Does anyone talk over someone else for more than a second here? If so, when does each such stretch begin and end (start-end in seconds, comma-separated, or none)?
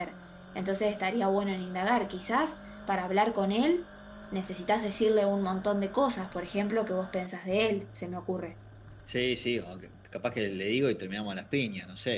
none